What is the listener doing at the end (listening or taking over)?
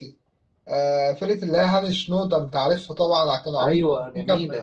listening